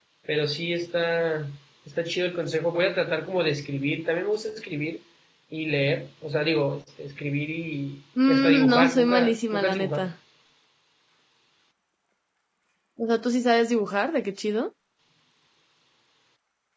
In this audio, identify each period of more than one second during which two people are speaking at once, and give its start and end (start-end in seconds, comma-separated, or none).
8.3-10.1